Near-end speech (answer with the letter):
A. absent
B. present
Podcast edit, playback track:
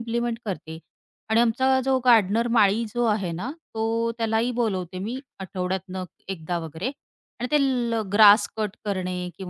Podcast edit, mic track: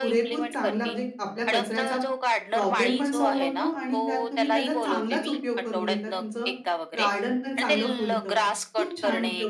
B